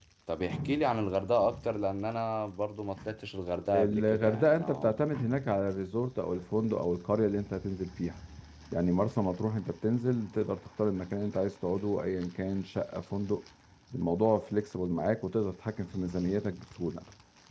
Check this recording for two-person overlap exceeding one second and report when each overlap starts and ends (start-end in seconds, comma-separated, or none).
3.7-5.1